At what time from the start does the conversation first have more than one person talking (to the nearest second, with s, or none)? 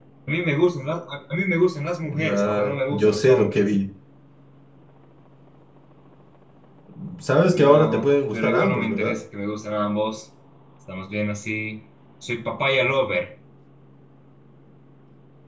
2 s